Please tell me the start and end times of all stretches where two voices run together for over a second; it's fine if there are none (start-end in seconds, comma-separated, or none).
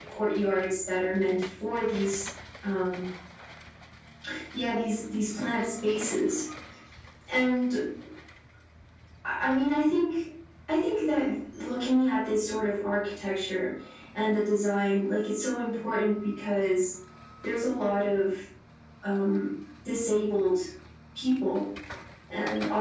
none